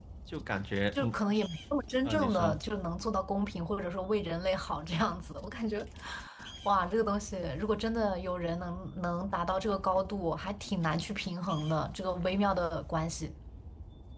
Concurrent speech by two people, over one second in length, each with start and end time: none

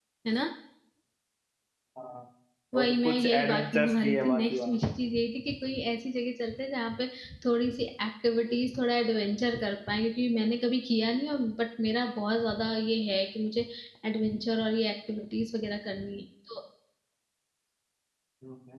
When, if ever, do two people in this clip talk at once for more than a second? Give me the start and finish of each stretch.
2.8-4.8

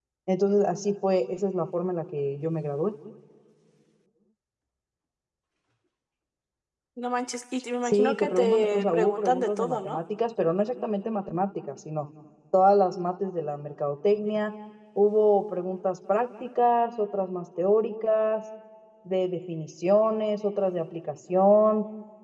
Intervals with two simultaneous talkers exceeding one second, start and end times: 7.8-10.0

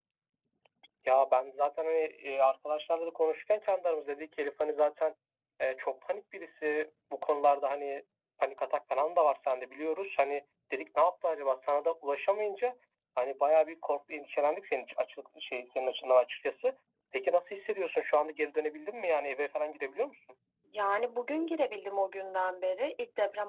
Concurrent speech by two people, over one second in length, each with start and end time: none

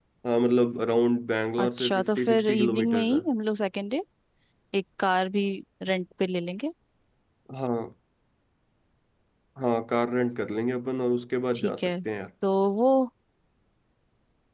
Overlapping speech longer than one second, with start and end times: 1.6-3.2

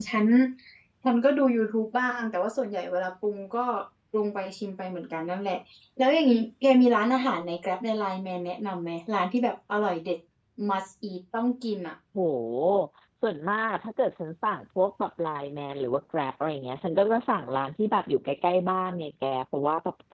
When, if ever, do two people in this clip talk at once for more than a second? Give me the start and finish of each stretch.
none

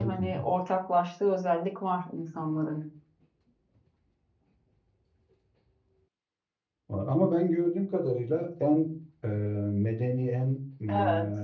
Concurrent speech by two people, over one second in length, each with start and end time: none

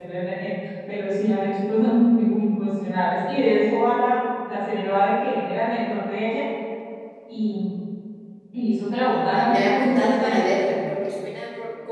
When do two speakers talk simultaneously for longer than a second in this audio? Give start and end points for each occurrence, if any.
9.0-10.5

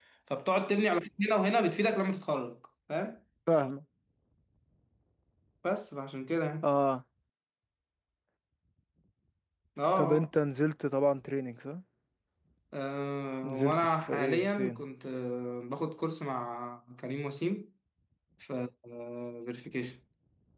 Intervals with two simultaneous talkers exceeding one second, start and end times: 13.4-14.8

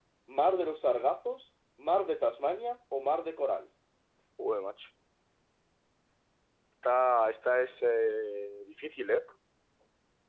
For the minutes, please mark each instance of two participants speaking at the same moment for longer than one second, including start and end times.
none

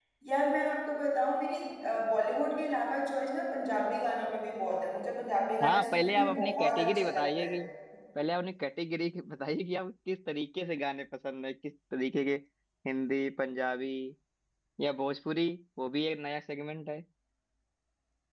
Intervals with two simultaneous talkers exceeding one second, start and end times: 5.6-7.5

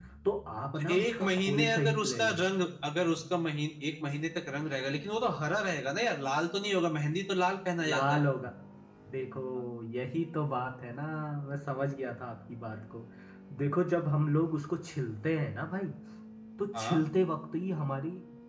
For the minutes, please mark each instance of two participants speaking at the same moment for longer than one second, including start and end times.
0.8-2.4

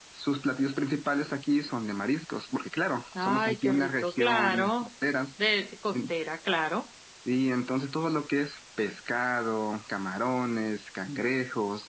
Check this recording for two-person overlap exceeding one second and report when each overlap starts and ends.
3.2-4.9

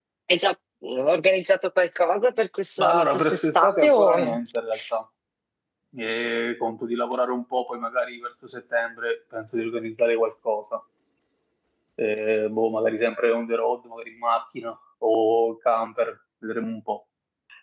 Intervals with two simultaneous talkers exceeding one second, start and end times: 2.8-4.3

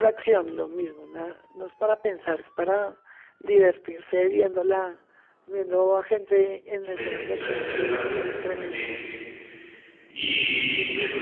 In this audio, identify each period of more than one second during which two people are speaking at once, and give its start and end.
6.8-9.0

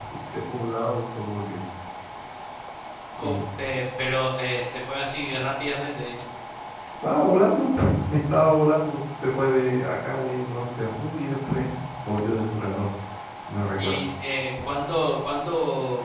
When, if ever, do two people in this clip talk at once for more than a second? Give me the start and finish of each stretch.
none

